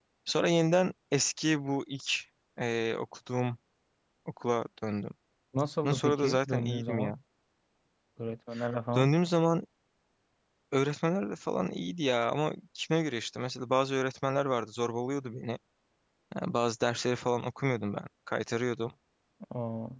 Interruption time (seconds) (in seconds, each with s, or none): 5.8 s